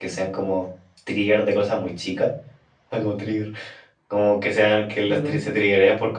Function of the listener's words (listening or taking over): listening